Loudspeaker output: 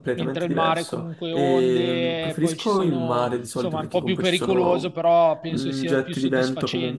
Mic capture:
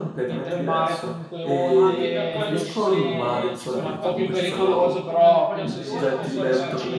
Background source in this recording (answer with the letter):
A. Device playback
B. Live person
B